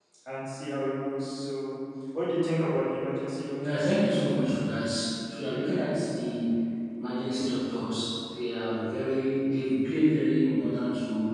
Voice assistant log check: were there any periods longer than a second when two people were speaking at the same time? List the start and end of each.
none

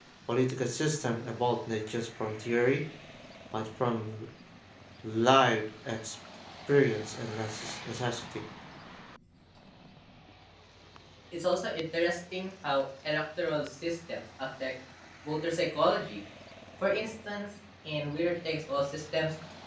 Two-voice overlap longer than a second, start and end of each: none

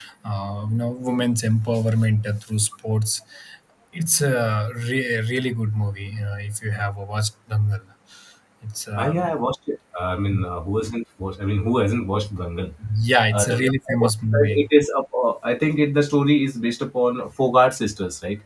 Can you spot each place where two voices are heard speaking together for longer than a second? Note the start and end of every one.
13.3-14.6

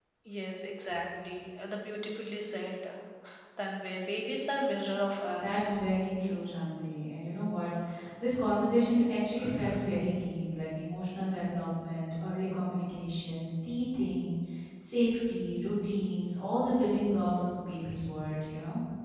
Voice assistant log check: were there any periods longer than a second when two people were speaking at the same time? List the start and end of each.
none

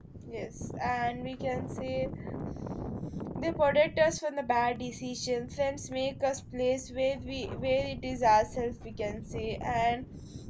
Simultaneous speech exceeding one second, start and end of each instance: none

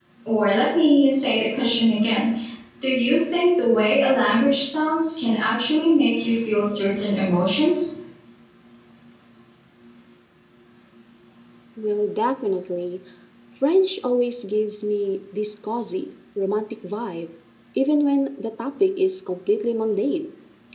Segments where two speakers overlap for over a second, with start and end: none

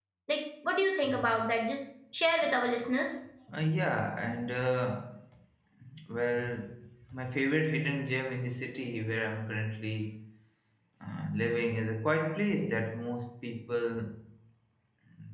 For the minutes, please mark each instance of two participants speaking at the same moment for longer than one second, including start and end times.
none

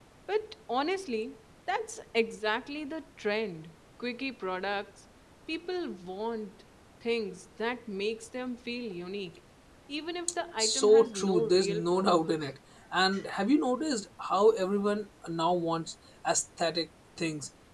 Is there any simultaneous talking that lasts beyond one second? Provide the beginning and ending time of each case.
10.6-12.4

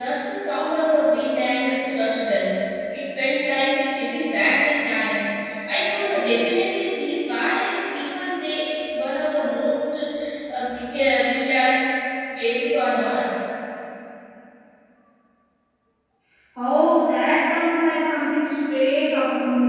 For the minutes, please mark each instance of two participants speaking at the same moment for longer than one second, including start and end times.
none

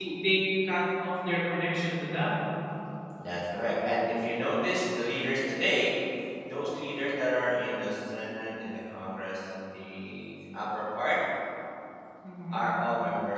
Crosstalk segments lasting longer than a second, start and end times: none

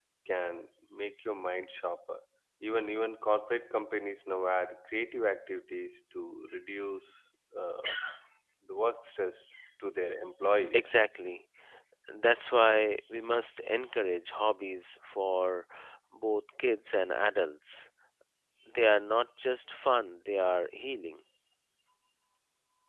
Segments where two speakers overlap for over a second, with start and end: none

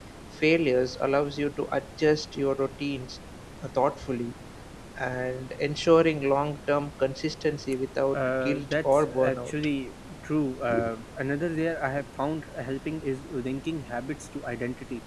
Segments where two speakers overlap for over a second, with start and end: 8.1-9.8

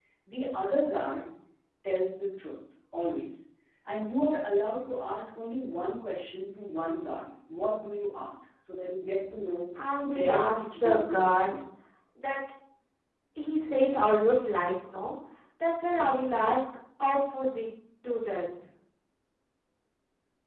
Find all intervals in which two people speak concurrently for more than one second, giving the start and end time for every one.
9.8-11.6

